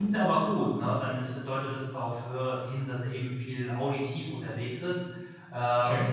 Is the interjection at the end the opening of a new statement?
No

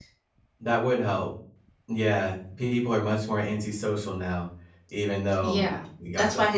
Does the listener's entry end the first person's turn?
Yes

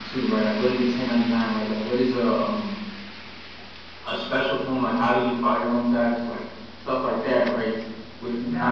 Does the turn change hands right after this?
No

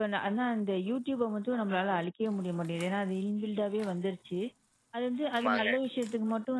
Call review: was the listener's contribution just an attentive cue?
Yes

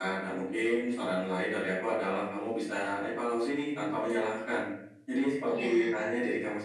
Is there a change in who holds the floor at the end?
No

